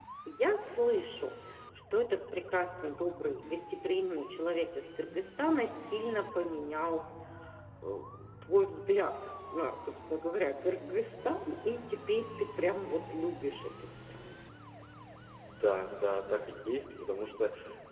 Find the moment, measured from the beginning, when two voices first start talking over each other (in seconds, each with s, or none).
none